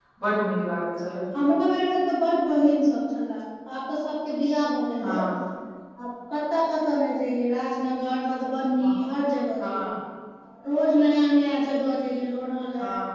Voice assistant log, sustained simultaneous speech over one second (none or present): none